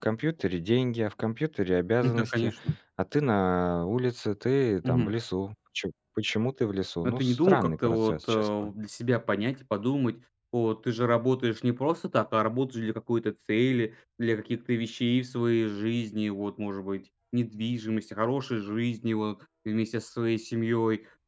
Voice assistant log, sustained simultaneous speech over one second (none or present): present